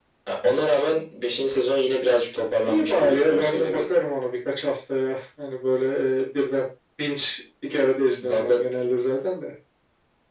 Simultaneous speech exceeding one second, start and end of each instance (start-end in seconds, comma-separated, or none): 2.6-3.9